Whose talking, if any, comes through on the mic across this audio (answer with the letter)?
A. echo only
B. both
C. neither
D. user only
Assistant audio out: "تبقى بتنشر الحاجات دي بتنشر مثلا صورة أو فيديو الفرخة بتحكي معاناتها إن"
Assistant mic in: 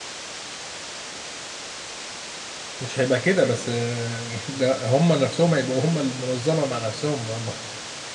D